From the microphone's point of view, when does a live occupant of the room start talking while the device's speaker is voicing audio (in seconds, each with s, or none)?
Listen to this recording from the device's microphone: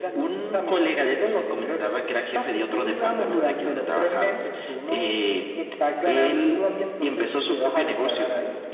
none